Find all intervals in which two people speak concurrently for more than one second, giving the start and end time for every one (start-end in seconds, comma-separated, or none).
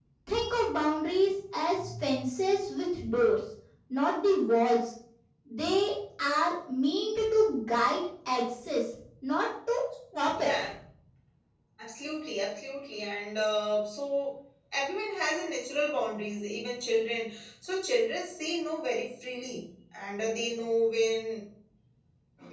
none